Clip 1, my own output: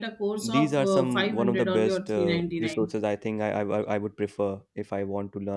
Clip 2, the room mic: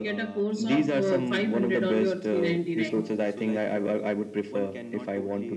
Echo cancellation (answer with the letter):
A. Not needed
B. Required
B